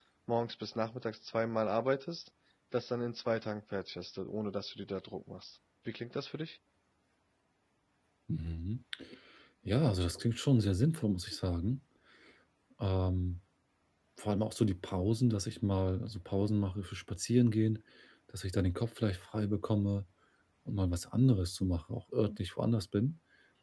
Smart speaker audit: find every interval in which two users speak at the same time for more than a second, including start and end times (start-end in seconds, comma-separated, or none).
none